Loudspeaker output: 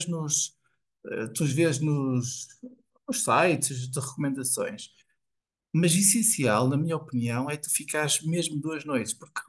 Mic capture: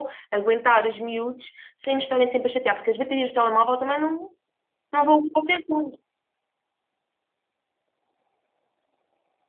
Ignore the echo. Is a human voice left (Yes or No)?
Yes